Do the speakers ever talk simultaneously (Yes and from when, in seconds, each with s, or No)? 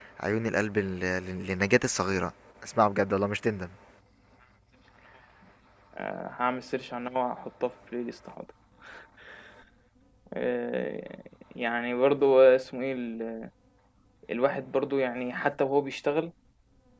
No